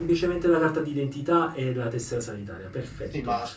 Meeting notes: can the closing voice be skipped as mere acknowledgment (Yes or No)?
No